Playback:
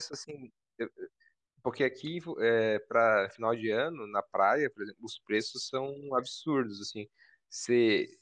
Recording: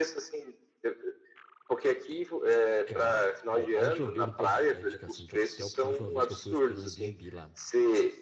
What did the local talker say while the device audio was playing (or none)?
Cara, ó, a última vez eu não posso te dar indicação de hotel, porque a última vez que eu fui eu fiquei no Airbnb lá.